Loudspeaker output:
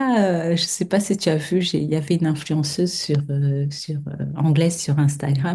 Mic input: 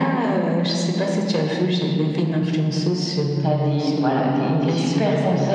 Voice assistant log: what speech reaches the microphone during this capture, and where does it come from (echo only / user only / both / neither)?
both